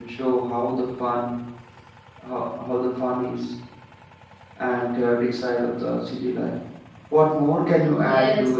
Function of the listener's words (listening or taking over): taking over